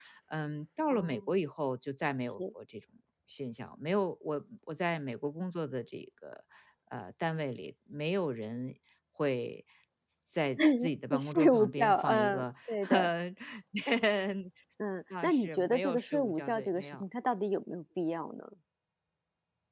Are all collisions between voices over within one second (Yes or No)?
No